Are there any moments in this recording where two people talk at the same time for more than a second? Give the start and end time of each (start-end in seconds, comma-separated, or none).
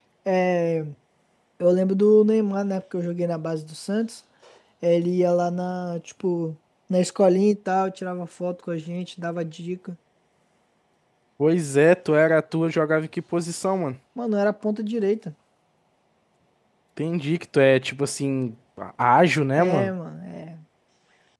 none